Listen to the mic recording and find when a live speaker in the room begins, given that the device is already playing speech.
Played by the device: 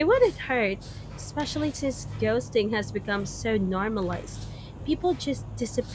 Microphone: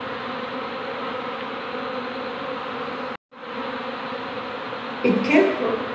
5.0 s

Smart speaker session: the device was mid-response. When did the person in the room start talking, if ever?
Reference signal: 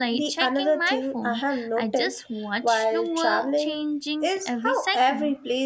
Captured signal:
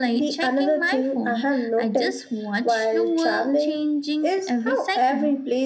none

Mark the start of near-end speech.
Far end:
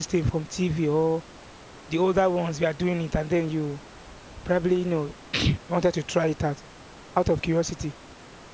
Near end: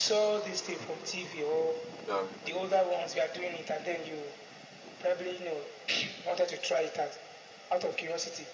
2.0 s

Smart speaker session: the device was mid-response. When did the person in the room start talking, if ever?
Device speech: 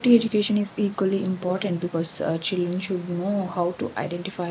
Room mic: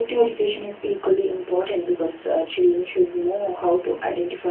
none

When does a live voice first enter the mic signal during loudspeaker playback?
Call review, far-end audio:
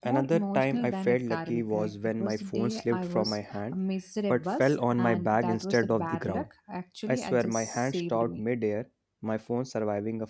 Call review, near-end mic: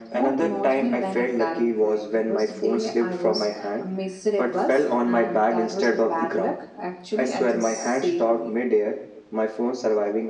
none

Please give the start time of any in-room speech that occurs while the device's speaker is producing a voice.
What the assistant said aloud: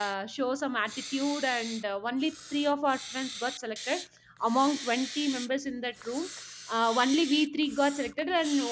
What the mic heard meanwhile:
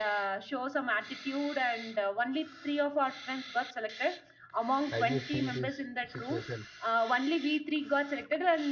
4.8 s

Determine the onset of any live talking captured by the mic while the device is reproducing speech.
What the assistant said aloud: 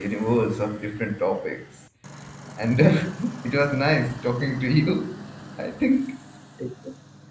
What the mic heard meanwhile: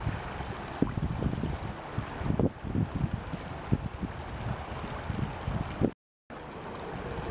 none

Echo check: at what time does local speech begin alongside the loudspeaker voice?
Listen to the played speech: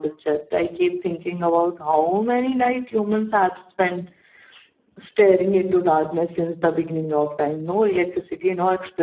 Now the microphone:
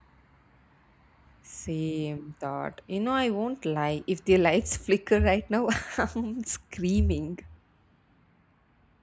1.4 s

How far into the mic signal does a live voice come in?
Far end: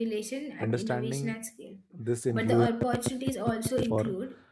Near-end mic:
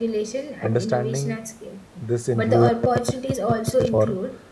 none

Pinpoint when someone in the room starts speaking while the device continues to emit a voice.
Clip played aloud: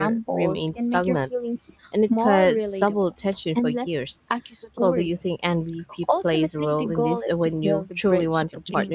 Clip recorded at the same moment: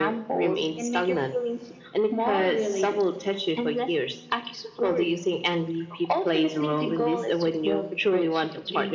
none

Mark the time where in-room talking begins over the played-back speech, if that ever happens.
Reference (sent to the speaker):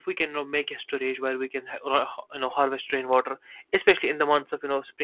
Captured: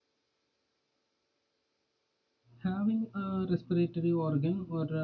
2.6 s

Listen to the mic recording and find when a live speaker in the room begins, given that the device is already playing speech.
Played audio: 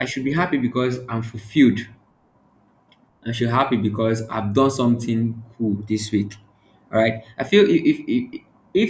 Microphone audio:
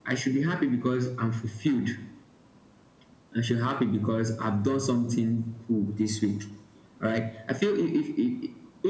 none

